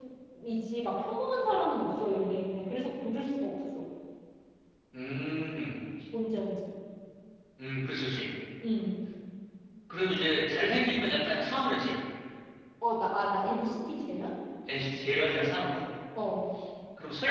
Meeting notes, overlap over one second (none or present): none